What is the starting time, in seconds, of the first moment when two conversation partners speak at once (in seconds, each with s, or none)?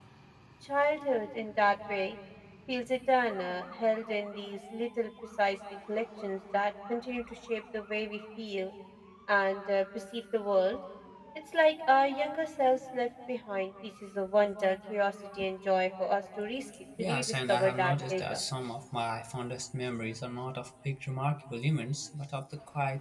17.0 s